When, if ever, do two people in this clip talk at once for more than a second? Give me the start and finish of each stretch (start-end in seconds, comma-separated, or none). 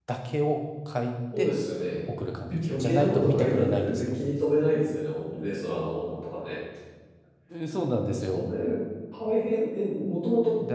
2.7-4.2